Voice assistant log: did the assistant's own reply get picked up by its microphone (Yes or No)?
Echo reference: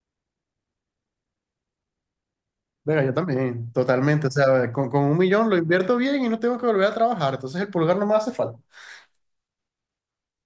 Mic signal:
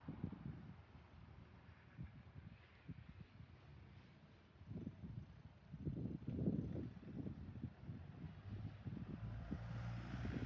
No